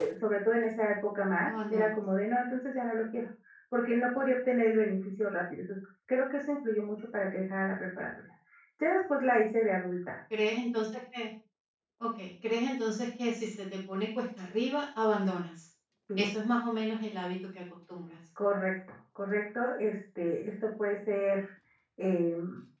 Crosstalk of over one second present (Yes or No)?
No